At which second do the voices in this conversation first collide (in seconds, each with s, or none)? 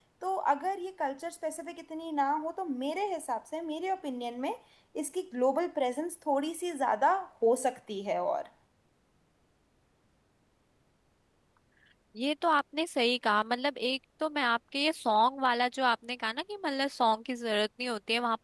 none